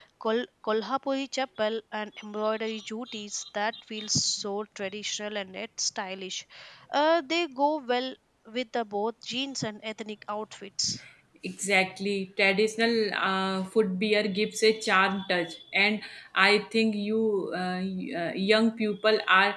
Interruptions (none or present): none